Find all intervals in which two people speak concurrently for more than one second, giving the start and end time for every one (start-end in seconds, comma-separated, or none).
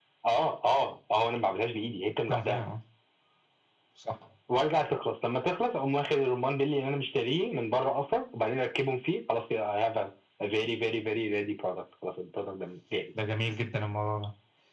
none